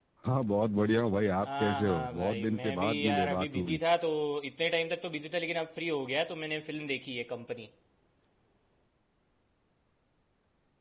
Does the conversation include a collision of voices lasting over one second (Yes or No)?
Yes